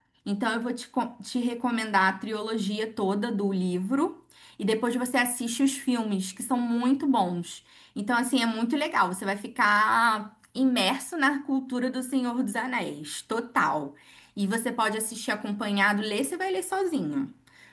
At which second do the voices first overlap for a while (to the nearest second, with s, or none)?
none